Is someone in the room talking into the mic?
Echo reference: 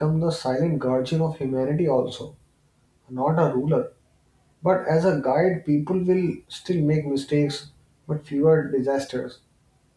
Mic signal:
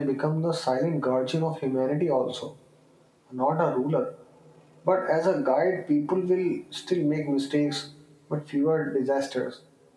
No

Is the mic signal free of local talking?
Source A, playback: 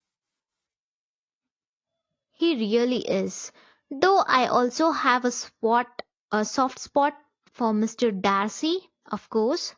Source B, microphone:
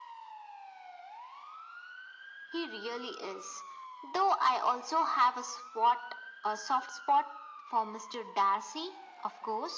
Yes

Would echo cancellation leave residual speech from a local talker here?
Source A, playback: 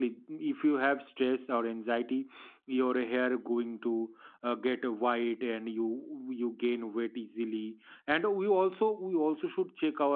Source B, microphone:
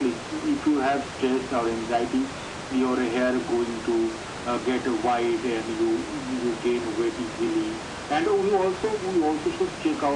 No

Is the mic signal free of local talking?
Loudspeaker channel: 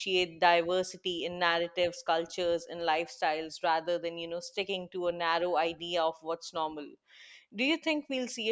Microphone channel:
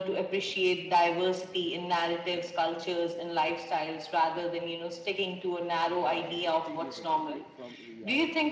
No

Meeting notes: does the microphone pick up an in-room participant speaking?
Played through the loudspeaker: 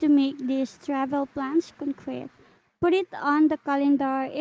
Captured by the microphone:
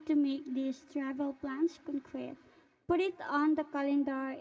No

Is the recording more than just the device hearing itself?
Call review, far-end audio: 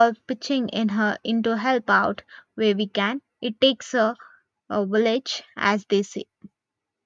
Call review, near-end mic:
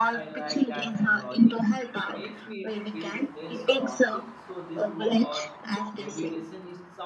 Yes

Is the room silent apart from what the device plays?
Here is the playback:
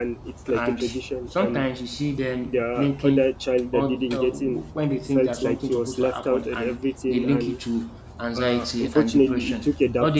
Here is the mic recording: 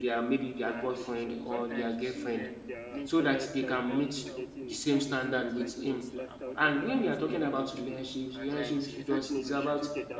No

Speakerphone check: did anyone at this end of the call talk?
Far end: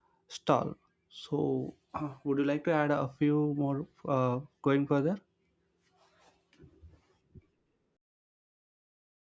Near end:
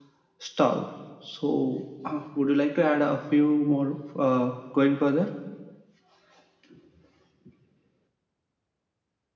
No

